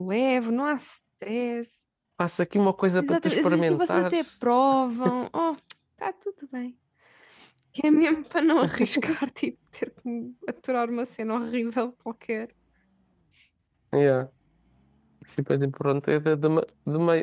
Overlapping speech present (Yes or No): Yes